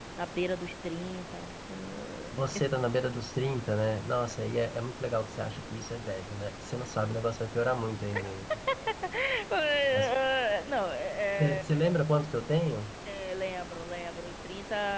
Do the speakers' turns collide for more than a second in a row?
No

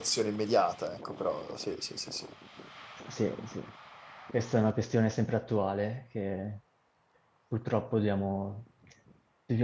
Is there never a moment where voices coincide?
Yes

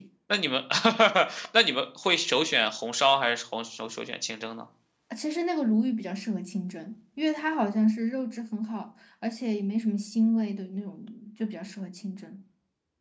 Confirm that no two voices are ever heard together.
Yes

